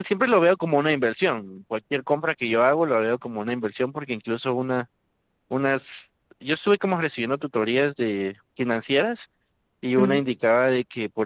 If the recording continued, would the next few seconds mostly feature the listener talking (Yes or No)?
No